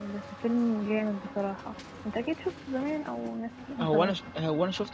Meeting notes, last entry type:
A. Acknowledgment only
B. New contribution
B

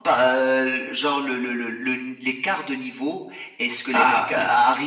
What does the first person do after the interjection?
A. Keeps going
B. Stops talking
A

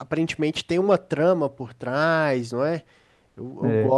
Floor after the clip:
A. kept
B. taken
A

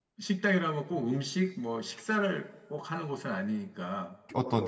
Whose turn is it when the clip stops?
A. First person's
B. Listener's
B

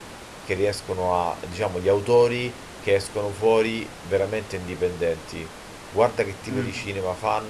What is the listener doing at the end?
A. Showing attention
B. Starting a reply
A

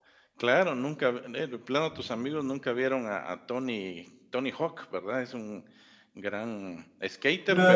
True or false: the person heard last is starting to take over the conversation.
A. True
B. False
A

